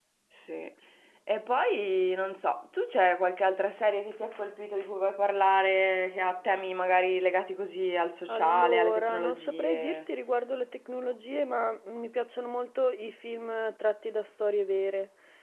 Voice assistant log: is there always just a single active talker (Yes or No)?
No